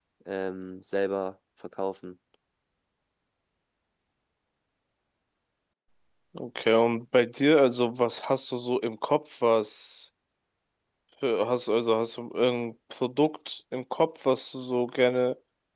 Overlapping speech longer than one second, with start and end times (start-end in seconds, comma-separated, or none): none